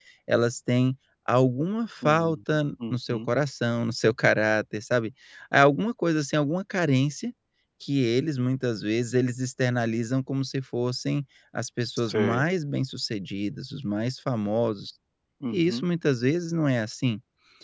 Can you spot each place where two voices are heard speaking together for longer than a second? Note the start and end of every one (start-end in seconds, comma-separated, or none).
none